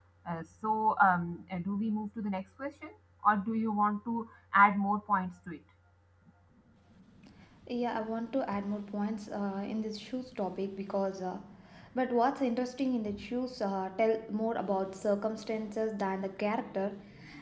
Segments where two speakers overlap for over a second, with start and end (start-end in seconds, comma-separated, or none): none